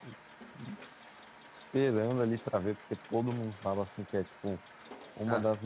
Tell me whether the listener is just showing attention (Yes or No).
Yes